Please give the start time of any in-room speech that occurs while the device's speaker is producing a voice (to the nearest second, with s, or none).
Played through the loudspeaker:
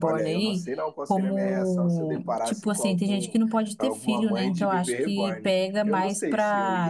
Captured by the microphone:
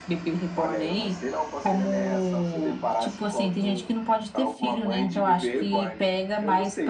none